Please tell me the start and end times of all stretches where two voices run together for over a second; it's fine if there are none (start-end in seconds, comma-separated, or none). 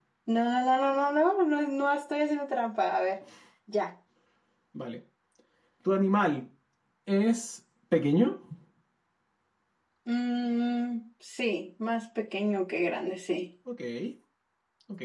none